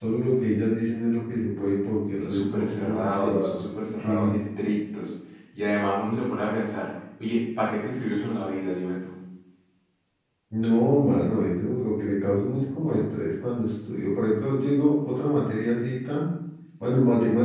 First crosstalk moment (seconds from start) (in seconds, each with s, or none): 2.2 s